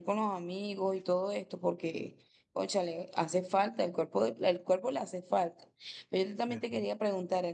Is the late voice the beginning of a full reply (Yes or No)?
No